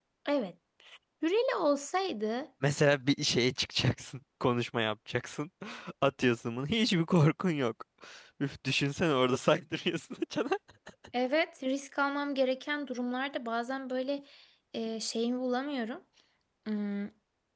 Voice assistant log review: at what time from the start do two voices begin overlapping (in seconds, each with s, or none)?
none